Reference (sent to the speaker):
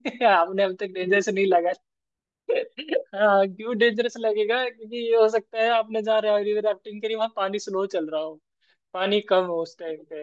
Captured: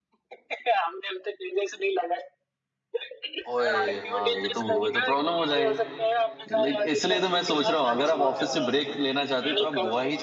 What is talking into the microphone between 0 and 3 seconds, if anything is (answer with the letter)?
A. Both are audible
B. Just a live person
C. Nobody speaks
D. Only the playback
D